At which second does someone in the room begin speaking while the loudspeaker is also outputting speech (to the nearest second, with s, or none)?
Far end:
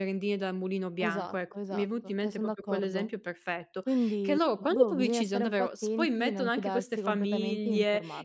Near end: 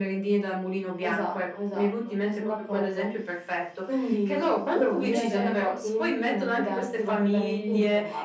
5 s